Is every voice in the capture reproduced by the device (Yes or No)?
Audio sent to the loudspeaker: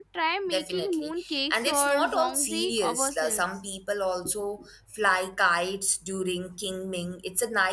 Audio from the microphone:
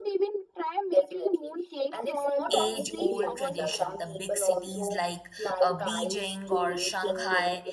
No